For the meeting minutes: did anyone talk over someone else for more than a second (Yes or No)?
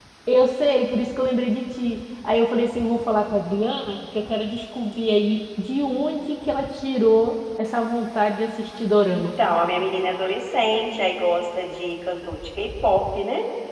No